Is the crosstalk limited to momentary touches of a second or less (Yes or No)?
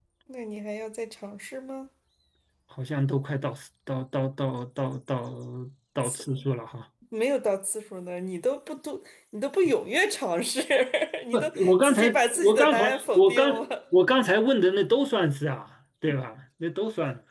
No